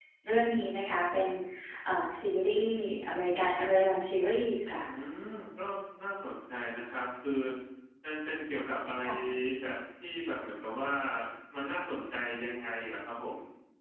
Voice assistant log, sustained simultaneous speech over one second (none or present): none